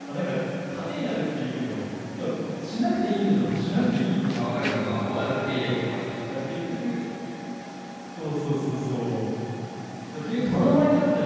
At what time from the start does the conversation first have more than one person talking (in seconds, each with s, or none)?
4.3 s